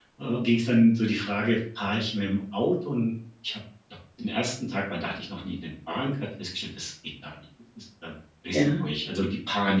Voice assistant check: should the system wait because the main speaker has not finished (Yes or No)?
Yes